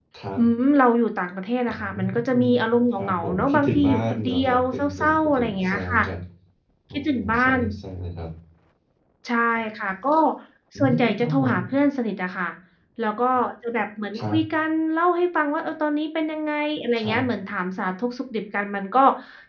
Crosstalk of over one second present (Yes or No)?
Yes